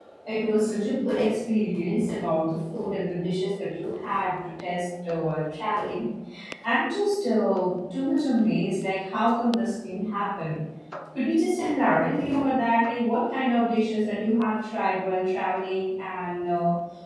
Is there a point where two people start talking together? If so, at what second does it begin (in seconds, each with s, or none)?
none